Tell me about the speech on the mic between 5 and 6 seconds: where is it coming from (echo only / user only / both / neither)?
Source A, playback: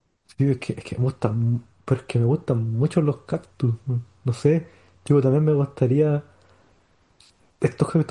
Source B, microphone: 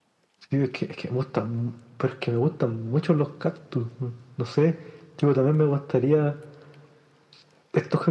echo only